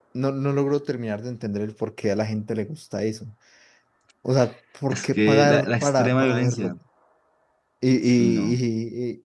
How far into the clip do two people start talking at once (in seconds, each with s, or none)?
4.9 s